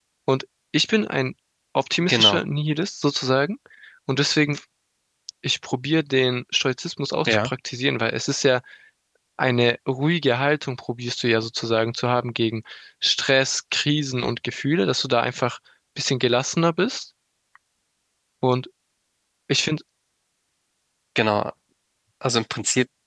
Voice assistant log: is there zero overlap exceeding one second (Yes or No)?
Yes